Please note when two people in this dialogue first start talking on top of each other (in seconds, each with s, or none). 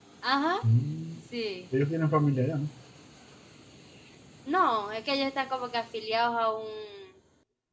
none